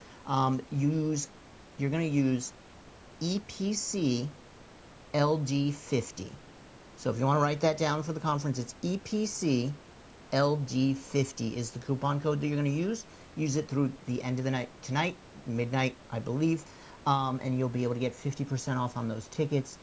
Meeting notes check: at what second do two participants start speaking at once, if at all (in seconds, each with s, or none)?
none